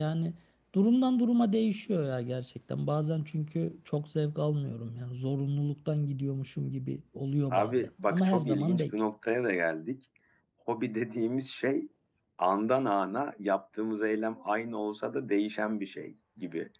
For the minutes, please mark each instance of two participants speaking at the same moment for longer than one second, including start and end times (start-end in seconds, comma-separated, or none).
7.5-8.9